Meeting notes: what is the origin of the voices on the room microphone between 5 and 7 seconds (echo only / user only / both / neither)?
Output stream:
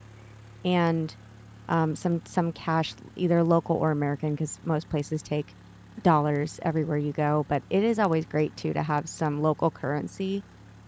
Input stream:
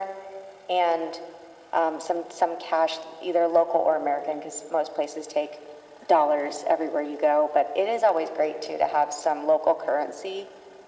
echo only